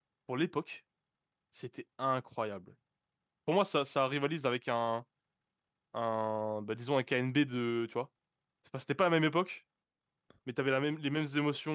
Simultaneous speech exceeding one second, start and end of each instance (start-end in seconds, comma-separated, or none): none